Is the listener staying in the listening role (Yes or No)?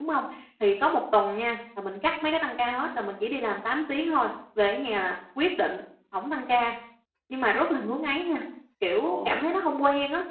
Yes